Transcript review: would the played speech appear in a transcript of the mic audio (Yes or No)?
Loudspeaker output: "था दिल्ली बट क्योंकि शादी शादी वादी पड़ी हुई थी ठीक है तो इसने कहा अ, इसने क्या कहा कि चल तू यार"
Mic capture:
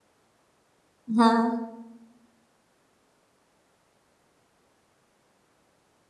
No